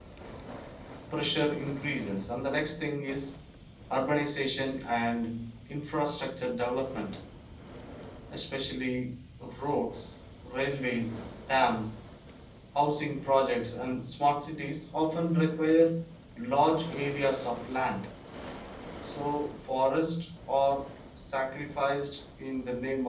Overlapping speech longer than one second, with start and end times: none

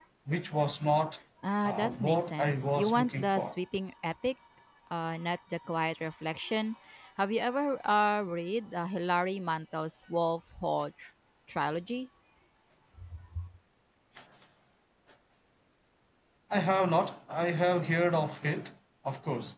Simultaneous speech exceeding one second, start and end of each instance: 1.6-3.5

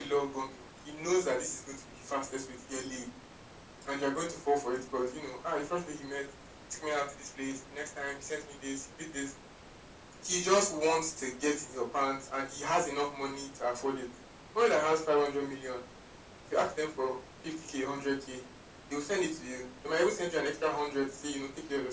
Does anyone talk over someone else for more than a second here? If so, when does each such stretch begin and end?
none

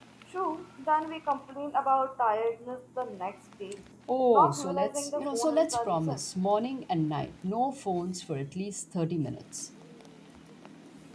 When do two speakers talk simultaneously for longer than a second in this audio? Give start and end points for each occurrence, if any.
4.3-6.2

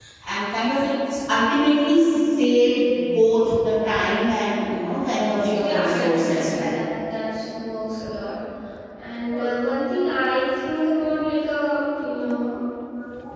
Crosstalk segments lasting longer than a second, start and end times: 5.5-6.7

